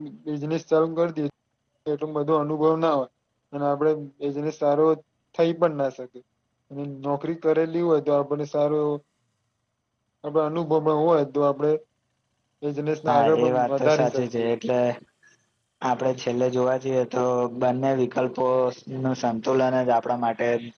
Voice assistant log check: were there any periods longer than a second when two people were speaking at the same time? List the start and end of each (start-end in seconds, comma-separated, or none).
13.1-14.5